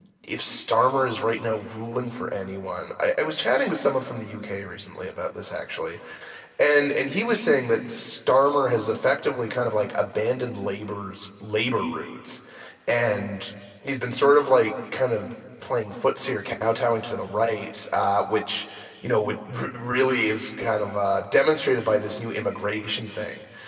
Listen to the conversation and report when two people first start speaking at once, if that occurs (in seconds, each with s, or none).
none